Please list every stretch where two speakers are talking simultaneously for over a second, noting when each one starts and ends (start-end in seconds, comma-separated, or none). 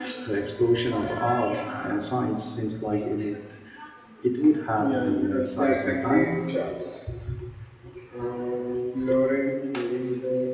4.8-6.3